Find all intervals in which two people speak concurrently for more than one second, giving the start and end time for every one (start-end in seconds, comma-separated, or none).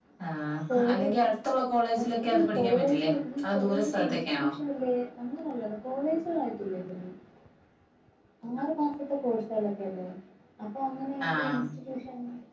2.2-4.5